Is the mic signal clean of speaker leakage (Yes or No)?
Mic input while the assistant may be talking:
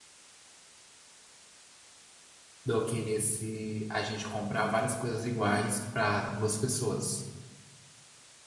Yes